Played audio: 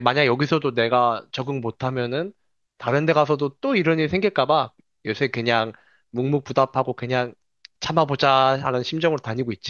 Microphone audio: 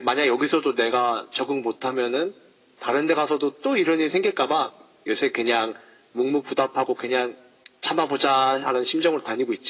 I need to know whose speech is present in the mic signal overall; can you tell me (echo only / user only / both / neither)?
echo only